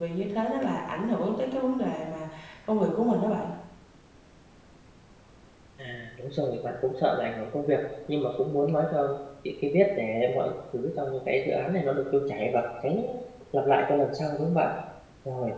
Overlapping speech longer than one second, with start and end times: none

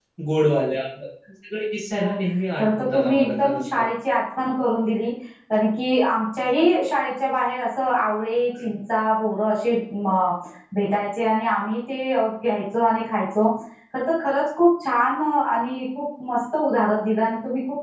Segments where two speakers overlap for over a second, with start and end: 2.6-3.8

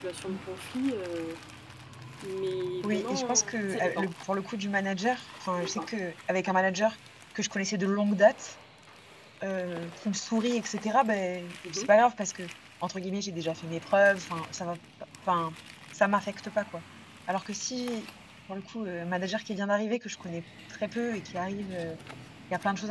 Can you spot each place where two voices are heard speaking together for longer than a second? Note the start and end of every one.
2.8-4.1

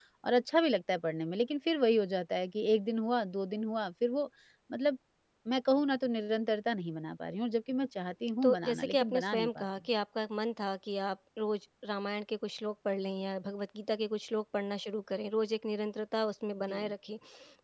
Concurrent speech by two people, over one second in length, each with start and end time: 8.4-9.7

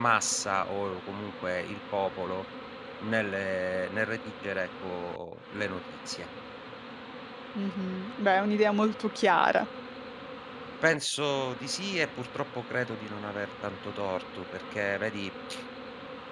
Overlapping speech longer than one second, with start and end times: none

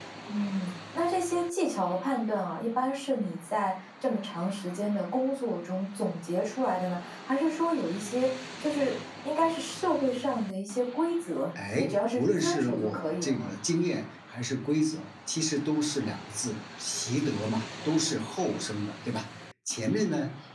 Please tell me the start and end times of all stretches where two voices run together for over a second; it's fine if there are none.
11.8-13.5

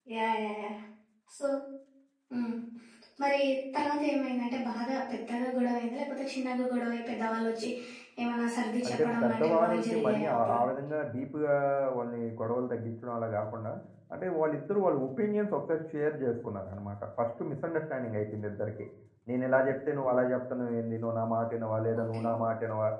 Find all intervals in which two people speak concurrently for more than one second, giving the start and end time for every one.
8.9-10.6

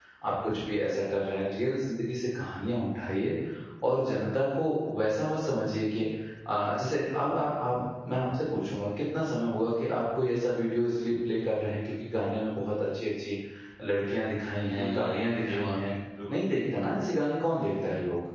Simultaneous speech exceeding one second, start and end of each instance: 14.7-15.9

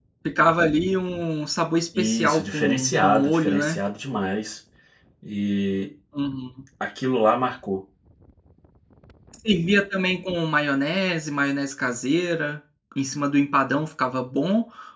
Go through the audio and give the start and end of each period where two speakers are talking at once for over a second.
2.0-3.8

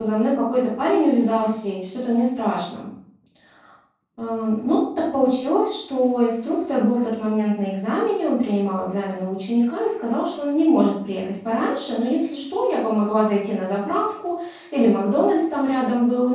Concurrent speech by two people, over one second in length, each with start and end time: none

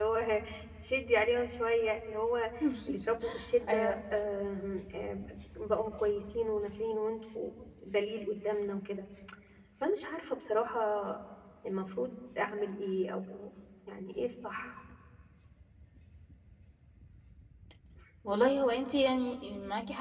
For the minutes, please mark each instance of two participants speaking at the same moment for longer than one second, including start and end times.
none

